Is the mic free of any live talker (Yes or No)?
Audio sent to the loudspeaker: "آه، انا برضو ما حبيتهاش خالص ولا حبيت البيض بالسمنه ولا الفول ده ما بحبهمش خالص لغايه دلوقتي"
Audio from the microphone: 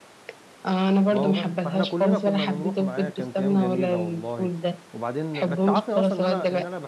No